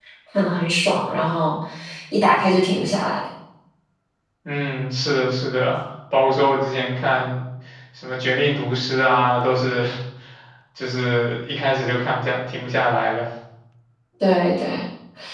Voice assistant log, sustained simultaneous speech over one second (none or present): none